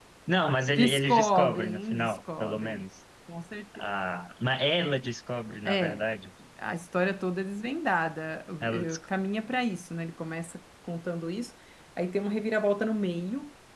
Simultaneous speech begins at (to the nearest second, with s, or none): 1 s